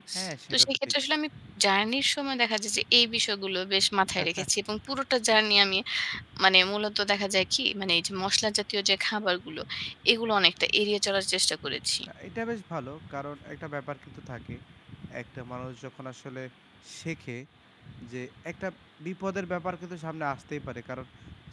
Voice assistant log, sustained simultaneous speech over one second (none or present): none